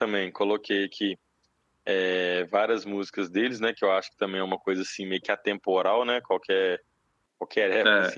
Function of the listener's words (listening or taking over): listening